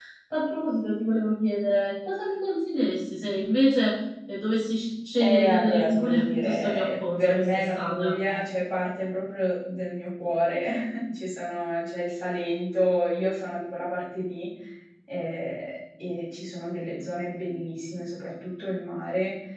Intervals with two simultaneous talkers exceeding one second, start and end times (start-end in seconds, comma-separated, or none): 5.2-8.1